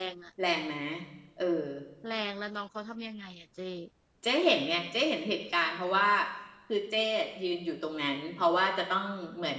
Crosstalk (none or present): none